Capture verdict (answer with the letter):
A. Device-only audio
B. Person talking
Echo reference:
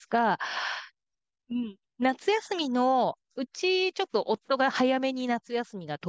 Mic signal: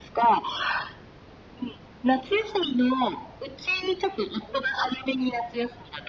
A